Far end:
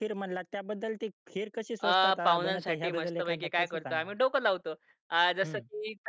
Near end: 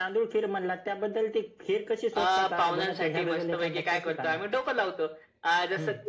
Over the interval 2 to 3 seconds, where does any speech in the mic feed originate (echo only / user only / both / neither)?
echo only